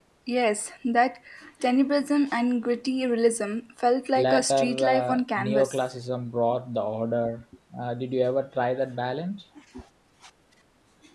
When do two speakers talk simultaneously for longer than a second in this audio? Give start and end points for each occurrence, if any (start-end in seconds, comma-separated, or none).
4.1-5.8